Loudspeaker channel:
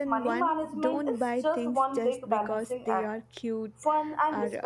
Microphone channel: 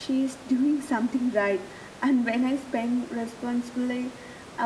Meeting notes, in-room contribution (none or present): present